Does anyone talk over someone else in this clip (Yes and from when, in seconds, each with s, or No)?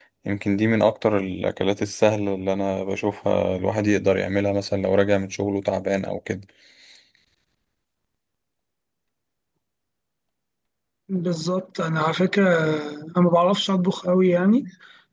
No